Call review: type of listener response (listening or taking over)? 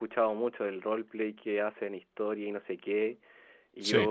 listening